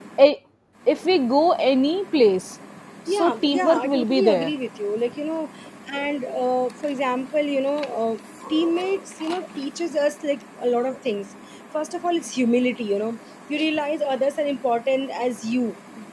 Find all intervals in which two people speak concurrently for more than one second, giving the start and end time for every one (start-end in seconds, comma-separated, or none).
3.1-4.5